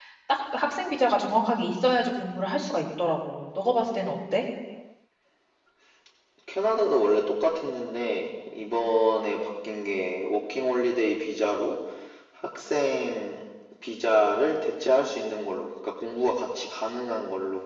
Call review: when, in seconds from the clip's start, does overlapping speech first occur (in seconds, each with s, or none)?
none